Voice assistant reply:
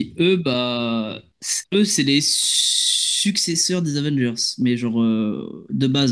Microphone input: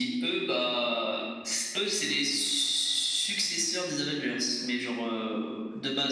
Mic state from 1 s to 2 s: echo only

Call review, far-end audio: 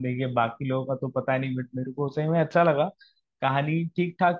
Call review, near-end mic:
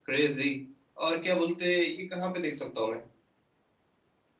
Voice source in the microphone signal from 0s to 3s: user only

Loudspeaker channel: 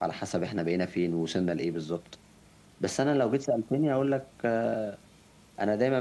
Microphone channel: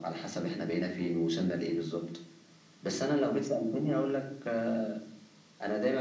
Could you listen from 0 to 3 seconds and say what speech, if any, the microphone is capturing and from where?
echo only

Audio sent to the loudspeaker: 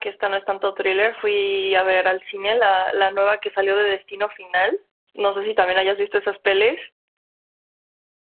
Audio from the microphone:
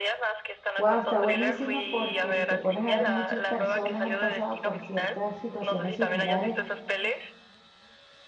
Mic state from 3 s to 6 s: both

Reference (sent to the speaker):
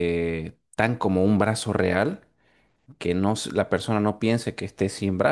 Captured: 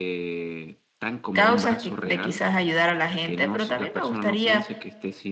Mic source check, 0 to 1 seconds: echo only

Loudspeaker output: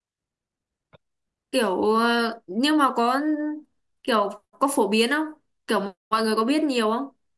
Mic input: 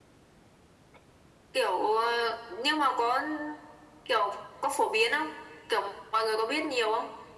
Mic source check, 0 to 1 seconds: neither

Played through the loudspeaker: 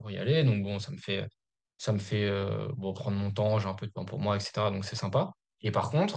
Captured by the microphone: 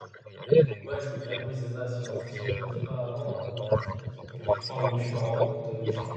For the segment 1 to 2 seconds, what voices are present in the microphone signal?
both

